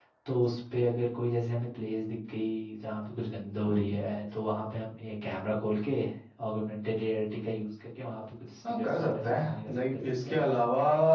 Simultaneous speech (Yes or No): Yes